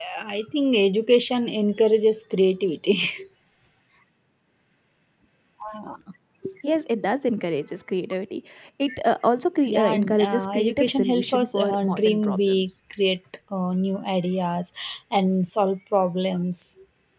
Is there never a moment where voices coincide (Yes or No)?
No